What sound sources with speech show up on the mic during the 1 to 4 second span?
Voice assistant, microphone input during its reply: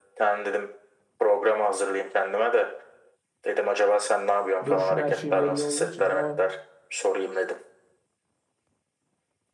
echo only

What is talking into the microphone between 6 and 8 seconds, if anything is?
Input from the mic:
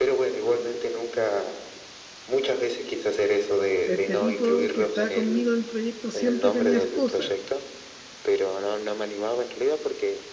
both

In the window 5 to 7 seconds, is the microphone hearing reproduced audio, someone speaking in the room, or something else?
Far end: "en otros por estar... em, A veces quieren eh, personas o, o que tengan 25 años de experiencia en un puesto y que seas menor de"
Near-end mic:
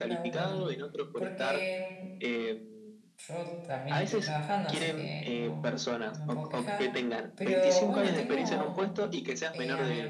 both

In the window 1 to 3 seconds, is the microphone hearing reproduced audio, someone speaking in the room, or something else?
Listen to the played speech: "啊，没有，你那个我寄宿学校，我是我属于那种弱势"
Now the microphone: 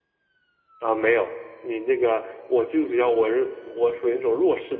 echo only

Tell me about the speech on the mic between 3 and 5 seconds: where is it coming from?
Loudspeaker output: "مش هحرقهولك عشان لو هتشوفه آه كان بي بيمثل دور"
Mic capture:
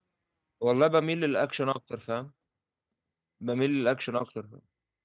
user only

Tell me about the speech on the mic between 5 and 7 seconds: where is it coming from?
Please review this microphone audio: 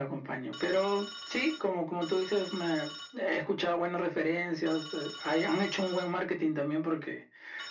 echo only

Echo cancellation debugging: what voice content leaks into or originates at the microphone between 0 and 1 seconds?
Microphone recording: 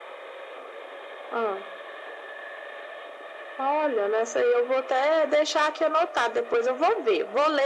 neither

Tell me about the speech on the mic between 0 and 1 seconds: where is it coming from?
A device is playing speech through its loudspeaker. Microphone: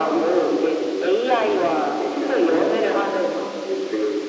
echo only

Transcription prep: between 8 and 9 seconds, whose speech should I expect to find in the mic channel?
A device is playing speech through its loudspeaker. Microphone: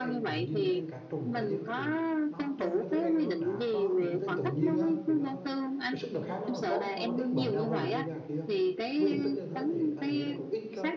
both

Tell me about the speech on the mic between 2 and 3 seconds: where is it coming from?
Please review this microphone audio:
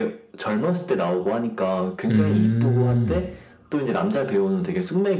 both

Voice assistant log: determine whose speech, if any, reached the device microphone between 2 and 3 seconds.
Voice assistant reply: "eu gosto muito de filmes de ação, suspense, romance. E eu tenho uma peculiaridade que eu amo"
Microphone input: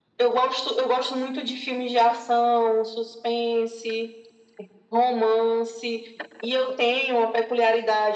echo only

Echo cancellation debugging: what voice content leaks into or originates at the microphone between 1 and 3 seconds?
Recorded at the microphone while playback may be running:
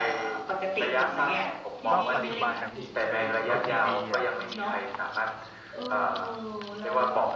both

